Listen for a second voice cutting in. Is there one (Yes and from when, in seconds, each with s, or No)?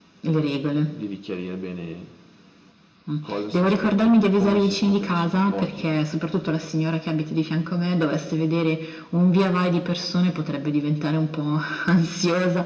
Yes, from 3.5 s